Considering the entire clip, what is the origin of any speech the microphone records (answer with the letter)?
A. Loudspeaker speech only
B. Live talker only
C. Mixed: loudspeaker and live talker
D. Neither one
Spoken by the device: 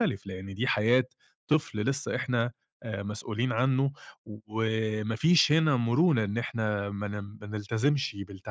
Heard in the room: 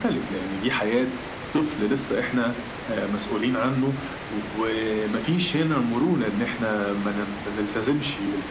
A